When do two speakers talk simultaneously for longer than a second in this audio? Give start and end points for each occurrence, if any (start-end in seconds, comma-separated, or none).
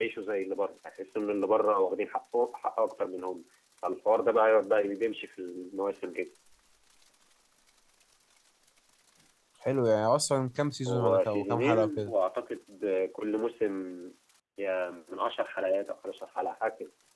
10.9-12.1